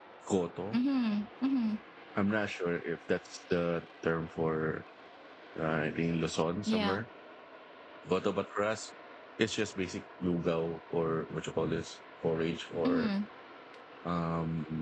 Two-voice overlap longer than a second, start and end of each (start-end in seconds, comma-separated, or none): none